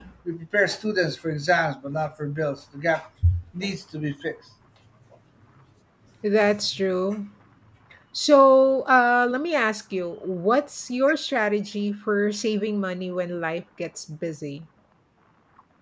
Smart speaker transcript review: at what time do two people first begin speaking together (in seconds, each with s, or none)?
none